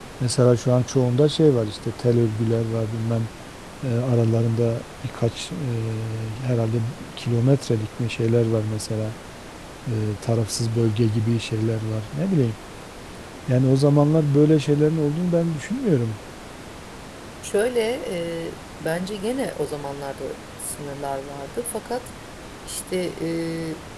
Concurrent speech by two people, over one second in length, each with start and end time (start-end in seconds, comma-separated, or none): none